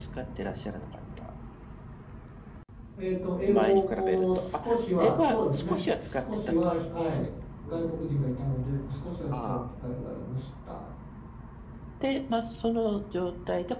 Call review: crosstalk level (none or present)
present